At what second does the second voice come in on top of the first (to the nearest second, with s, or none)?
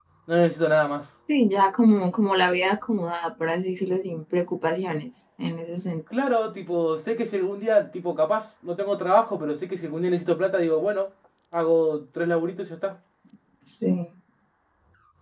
none